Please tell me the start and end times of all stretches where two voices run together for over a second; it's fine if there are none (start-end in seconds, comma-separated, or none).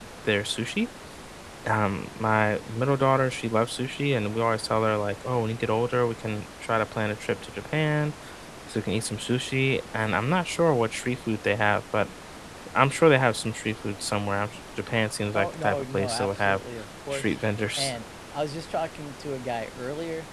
15.3-16.6